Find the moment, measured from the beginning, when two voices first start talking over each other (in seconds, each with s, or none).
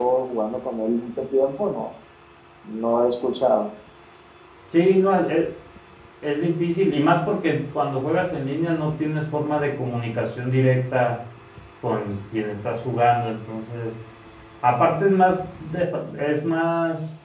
none